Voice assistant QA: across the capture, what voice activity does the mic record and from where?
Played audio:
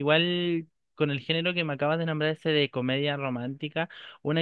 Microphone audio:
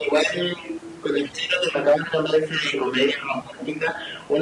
echo only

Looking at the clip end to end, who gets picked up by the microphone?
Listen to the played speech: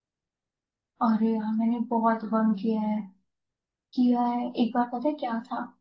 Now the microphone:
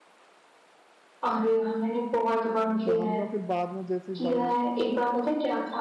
both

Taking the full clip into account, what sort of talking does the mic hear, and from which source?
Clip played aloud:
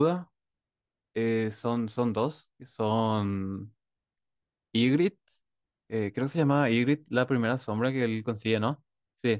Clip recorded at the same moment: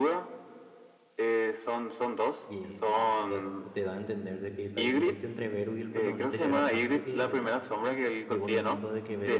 both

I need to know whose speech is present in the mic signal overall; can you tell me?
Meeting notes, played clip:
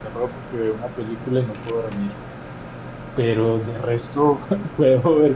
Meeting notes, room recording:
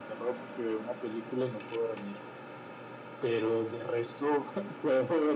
echo only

